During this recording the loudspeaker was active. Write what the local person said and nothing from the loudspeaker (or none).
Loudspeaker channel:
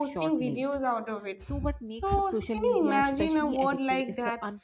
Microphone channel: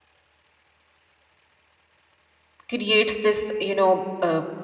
creates this you know uh,